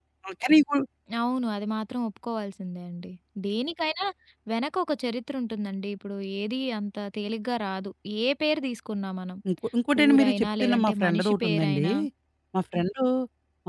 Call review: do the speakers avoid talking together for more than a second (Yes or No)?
No